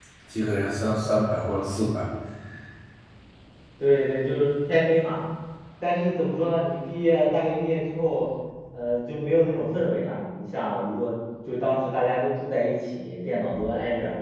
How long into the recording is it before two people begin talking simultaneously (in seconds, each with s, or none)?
none